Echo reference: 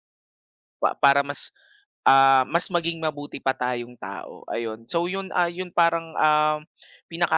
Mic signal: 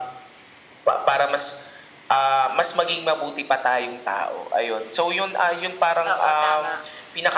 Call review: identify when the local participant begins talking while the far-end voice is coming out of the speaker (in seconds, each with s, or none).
6.1 s